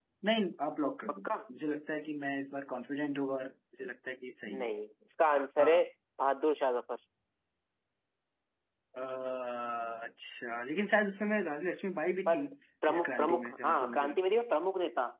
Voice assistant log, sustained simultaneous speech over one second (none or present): present